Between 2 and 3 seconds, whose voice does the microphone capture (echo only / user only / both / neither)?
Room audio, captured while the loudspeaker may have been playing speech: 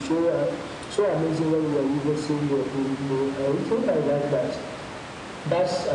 echo only